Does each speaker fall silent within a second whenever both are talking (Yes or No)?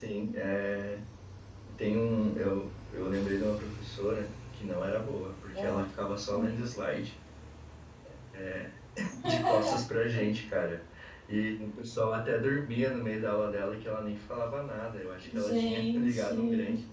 No